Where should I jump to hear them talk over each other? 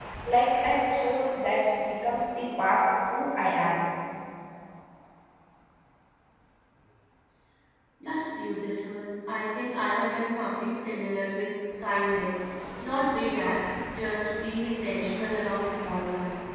none

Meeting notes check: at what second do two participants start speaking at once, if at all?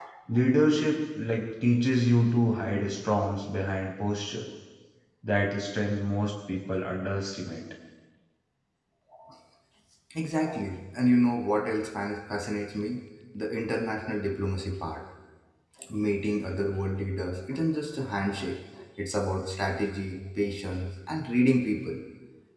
none

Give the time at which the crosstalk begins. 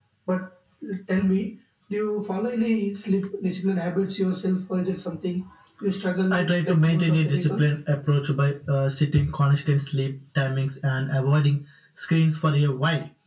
6.3 s

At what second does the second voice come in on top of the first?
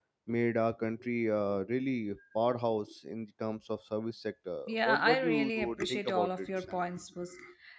4.7 s

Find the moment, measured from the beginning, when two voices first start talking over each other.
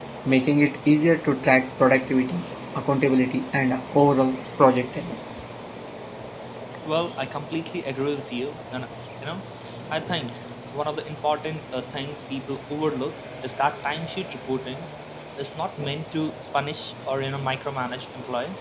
none

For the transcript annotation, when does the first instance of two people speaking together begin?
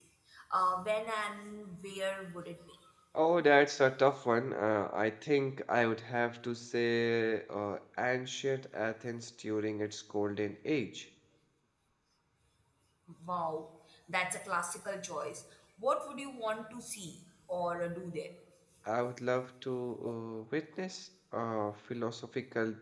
none

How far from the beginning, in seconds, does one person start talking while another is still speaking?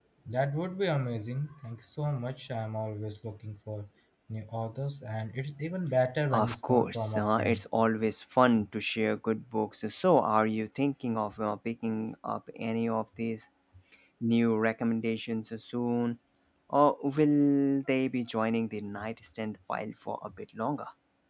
6.3 s

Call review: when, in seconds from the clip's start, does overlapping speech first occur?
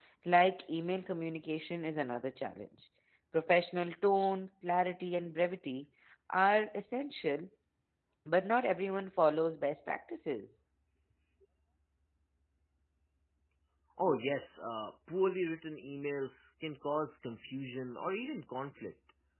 none

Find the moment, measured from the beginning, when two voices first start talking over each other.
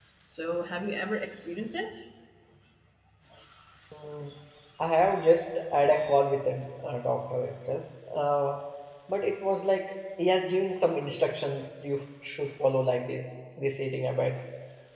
none

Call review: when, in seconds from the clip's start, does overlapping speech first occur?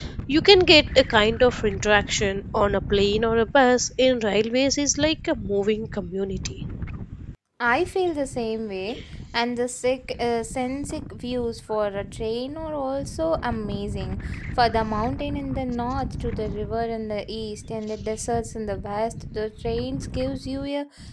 none

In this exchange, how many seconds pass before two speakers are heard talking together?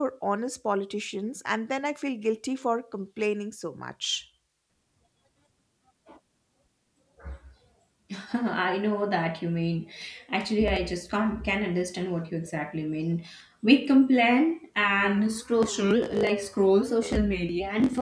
none

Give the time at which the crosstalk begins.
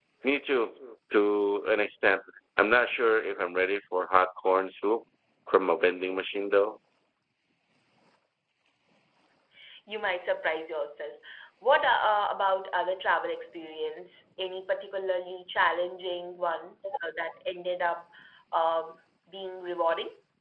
none

